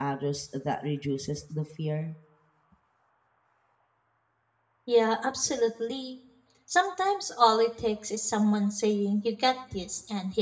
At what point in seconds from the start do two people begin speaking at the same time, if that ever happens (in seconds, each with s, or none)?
none